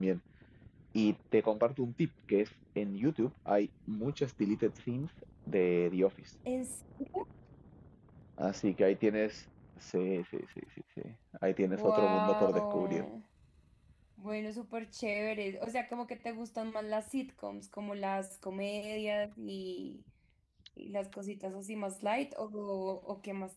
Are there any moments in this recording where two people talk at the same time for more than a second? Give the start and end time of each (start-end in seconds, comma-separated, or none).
11.6-13.0